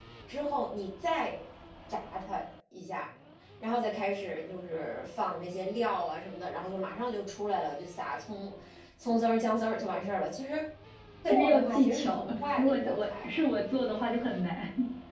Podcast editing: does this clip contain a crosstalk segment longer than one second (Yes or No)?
Yes